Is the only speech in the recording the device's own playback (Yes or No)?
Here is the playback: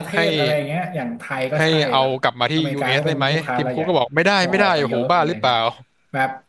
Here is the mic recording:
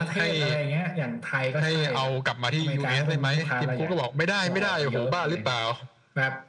Yes